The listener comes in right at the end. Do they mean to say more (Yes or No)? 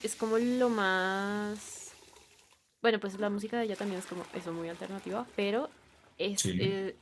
No